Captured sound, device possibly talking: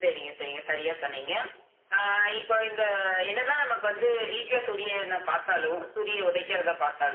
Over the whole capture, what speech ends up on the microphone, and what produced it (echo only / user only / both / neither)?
both